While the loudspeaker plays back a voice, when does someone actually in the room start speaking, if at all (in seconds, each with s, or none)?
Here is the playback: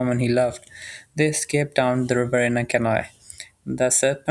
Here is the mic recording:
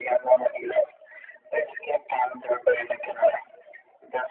none